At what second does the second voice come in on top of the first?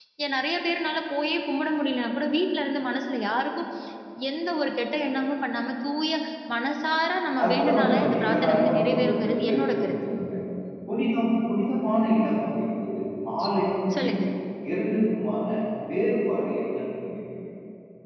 7 s

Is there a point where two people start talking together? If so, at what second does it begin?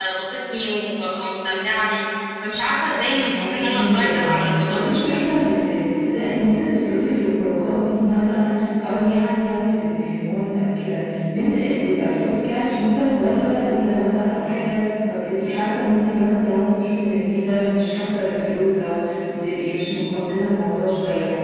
3 s

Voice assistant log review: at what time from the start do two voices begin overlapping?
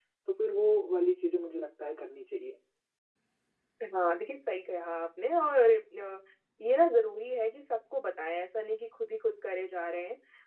none

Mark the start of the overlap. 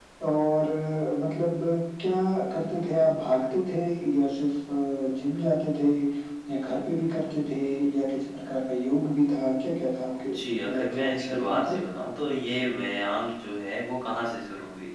10 s

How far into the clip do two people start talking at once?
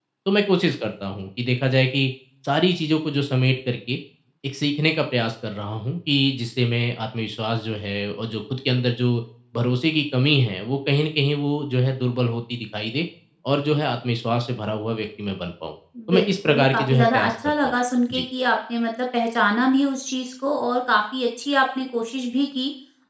16 s

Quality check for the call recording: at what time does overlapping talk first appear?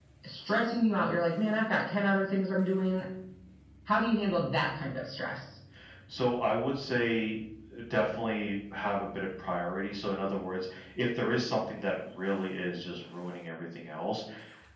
none

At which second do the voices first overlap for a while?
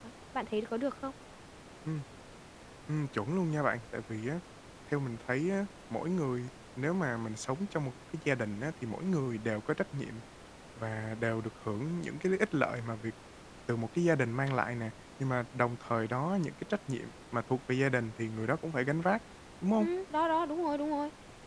none

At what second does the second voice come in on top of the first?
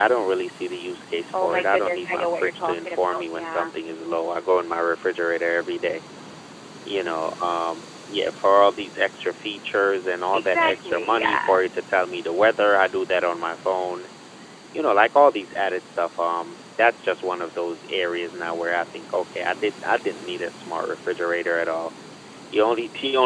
1 s

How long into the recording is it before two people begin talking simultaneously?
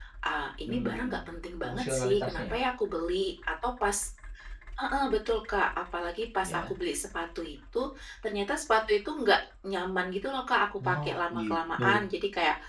1 s

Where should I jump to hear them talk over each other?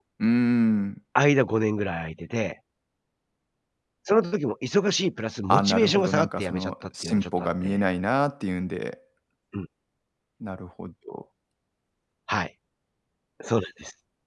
5 s

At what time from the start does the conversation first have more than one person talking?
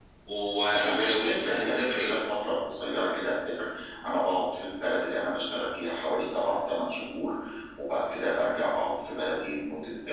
1 s

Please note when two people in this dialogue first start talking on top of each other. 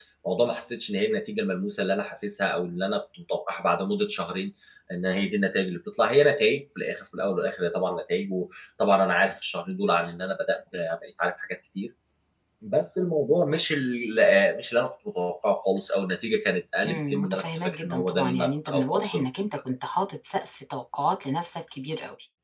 17 s

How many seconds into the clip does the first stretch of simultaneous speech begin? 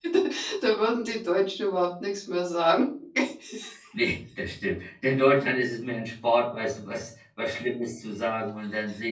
none

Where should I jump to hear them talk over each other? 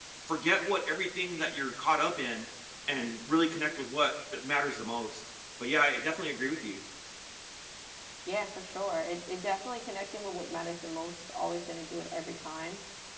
none

